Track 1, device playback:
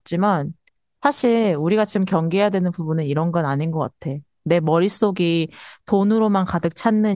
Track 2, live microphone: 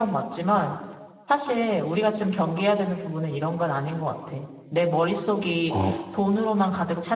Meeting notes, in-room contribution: present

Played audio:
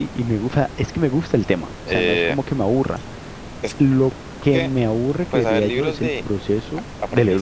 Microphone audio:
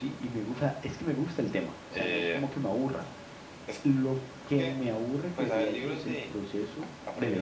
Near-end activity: none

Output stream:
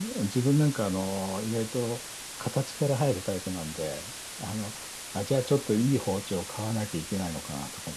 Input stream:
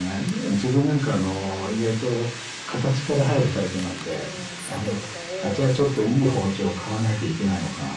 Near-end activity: present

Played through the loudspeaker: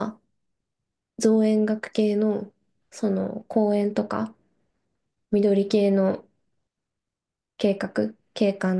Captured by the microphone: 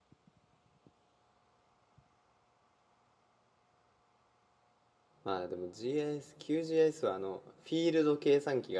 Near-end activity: present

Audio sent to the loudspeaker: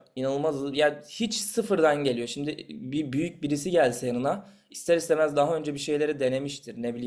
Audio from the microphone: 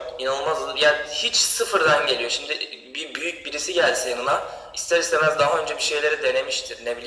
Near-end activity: none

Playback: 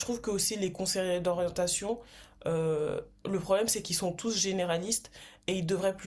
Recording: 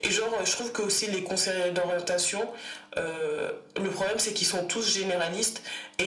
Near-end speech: none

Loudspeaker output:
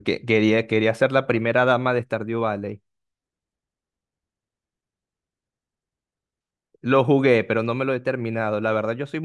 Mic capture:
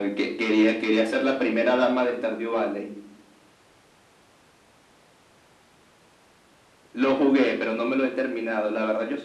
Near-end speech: none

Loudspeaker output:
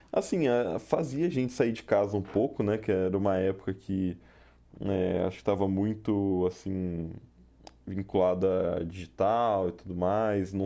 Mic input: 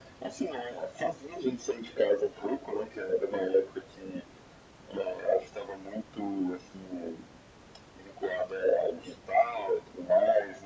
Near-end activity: none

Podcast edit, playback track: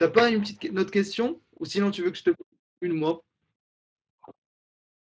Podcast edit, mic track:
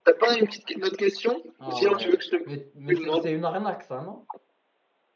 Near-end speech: present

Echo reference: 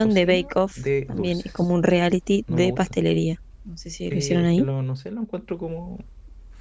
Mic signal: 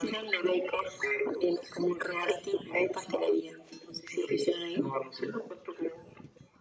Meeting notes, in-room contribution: none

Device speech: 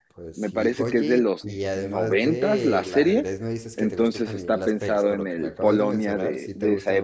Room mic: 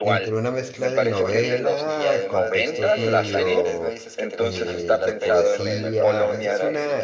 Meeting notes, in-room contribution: present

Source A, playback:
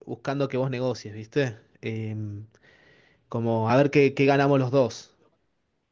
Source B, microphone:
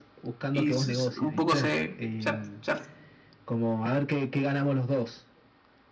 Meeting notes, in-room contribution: present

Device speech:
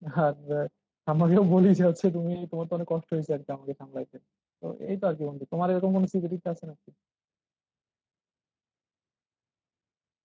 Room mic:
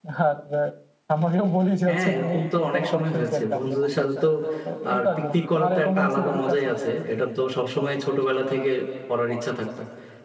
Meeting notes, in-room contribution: present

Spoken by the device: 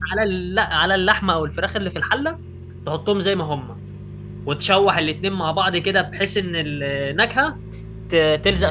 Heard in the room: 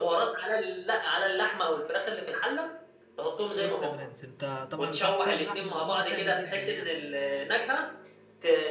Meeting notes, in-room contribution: present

